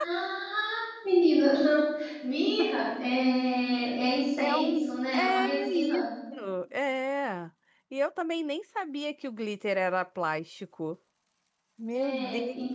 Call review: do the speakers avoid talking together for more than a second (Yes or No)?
No